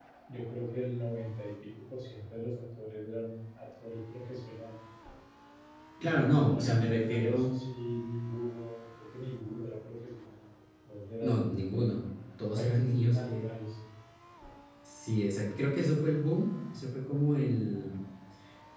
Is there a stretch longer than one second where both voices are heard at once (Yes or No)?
Yes